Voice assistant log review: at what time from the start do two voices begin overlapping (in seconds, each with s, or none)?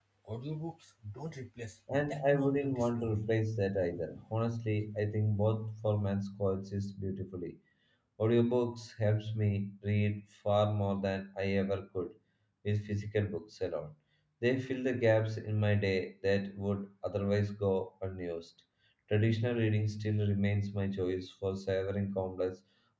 1.9 s